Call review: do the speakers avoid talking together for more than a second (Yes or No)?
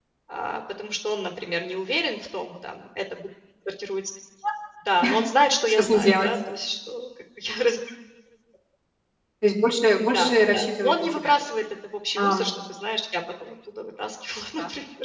No